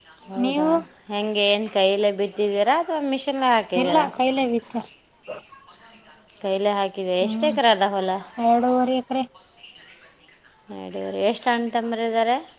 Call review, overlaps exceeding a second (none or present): none